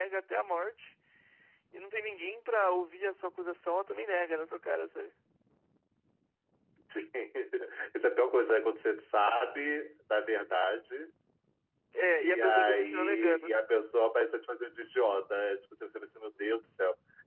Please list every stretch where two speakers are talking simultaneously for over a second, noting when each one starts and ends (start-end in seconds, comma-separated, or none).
12.2-13.5